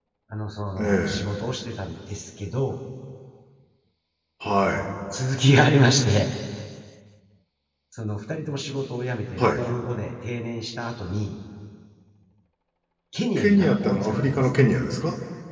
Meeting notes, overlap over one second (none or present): present